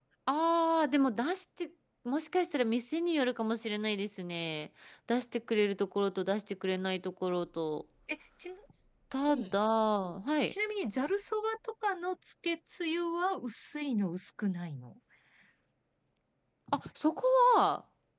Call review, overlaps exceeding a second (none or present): none